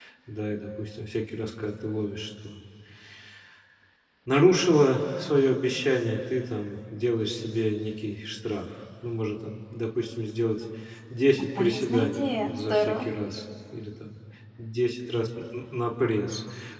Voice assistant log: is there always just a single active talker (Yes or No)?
No